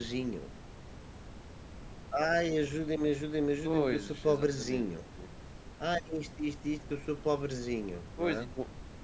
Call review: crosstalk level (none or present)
present